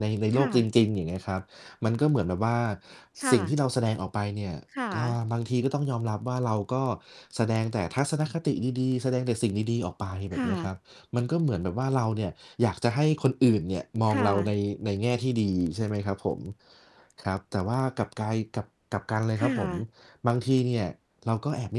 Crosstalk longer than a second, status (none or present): none